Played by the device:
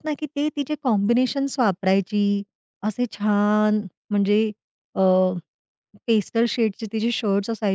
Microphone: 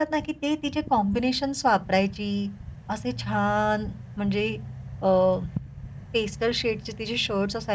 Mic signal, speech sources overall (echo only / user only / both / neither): echo only